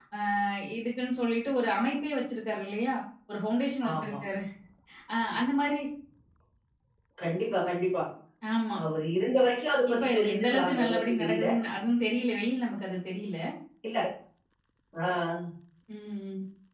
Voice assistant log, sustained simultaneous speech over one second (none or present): present